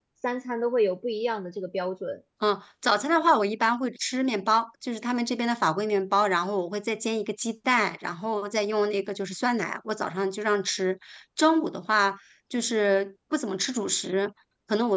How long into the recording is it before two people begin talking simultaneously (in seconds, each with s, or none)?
none